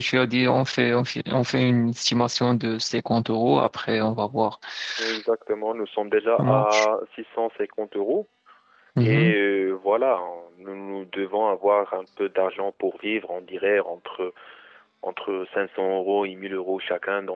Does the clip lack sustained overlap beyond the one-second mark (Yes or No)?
Yes